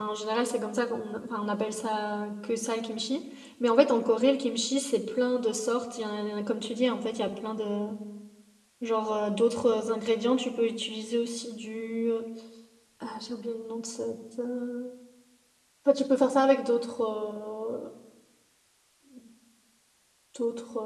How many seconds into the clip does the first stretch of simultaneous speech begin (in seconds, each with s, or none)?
none